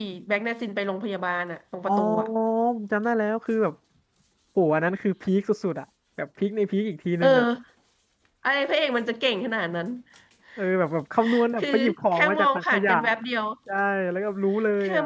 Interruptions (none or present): present